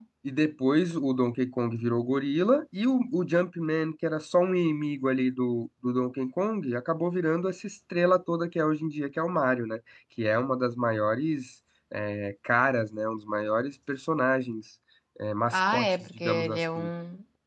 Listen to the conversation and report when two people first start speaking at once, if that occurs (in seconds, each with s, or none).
15.5 s